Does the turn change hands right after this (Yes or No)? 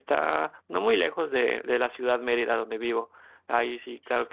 No